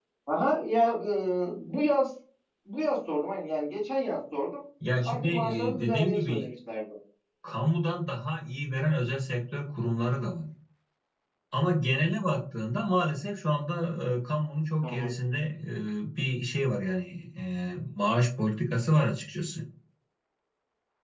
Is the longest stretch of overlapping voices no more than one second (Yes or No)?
No